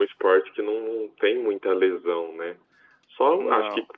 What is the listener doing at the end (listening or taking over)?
listening